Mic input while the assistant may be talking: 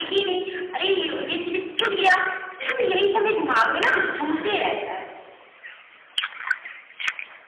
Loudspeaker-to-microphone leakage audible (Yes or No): Yes